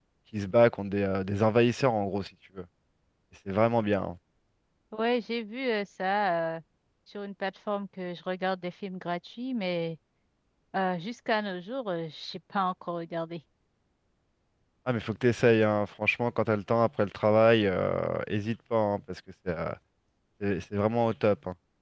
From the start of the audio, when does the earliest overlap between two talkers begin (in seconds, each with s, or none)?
none